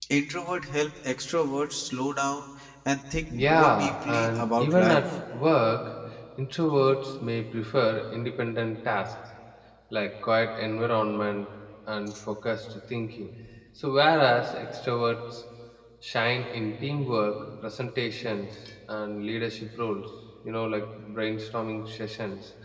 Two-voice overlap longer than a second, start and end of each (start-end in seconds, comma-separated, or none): 3.4-5.0